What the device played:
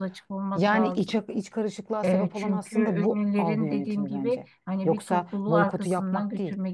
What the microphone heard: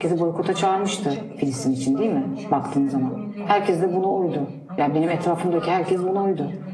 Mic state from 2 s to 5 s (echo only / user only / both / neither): both